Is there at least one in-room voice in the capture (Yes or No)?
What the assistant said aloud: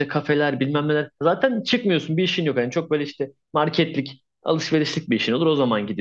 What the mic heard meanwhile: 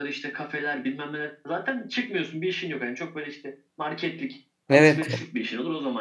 Yes